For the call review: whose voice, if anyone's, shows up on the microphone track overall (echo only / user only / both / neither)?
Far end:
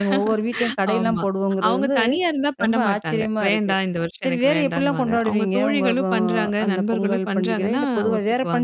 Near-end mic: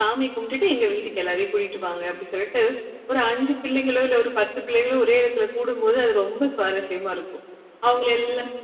user only